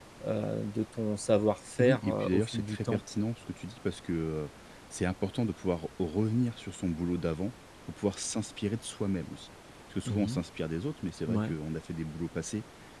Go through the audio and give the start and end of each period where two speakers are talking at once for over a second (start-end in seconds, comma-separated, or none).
1.8-3.0